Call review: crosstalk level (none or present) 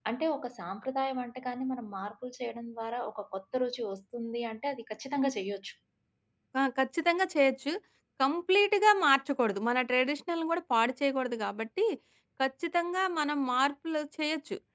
none